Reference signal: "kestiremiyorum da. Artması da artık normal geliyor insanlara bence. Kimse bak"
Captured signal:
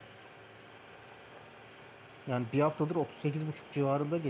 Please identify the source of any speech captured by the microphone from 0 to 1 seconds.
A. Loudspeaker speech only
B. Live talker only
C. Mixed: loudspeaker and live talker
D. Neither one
D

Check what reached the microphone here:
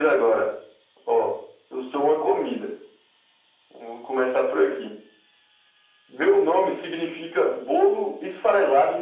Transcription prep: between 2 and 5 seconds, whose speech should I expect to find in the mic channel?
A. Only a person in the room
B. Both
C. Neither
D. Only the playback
D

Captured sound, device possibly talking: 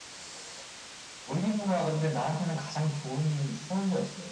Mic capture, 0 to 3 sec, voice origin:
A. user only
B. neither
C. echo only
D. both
C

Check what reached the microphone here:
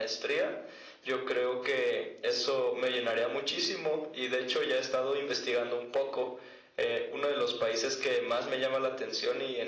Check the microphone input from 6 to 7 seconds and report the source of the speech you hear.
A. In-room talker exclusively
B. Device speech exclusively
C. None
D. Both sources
B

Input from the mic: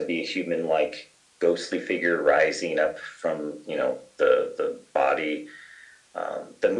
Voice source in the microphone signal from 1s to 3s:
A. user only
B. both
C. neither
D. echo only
D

